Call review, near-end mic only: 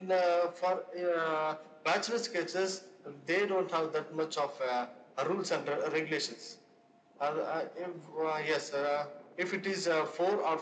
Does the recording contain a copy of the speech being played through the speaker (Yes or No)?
Yes